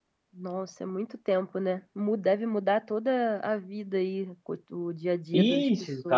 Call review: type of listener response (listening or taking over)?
taking over